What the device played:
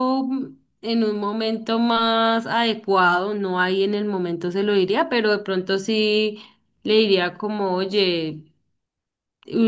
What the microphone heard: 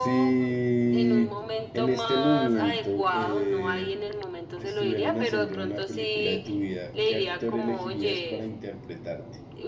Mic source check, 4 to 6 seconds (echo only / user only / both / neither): both